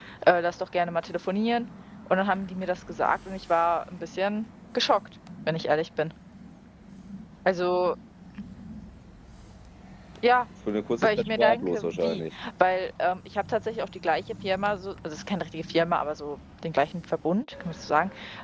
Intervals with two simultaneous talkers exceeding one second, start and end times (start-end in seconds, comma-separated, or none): 11.0-12.2